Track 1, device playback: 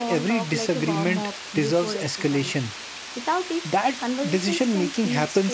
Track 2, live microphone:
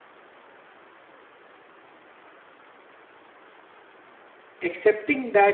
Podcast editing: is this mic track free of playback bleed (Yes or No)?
Yes